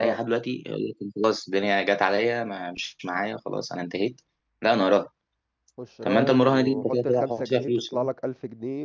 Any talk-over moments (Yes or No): Yes